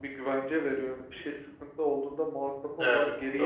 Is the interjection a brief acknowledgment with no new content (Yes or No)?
No